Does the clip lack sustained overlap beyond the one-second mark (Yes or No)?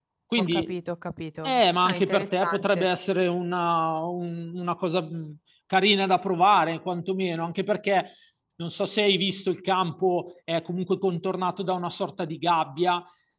No